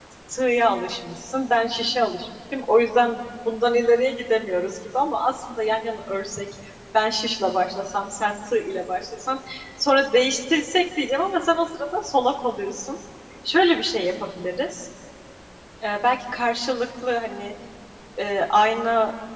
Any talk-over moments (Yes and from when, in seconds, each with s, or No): No